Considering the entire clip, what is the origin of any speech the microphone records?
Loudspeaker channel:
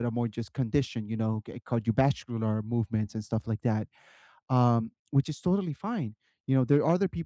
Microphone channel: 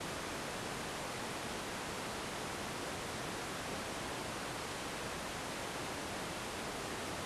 neither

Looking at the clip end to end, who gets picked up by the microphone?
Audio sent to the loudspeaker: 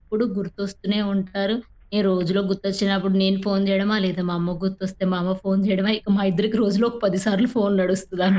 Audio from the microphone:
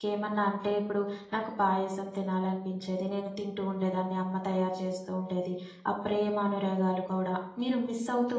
user only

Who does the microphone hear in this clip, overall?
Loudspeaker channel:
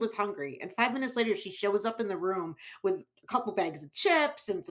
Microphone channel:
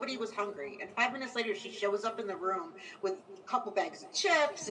echo only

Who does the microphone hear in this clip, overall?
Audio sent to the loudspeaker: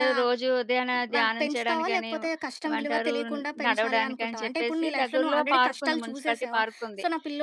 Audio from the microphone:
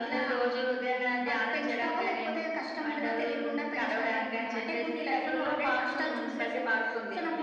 echo only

